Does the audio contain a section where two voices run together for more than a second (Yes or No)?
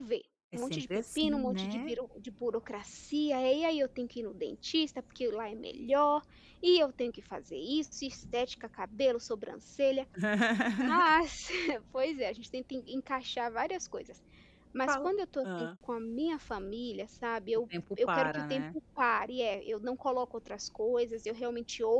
Yes